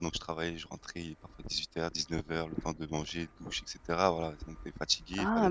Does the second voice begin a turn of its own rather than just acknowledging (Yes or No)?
Yes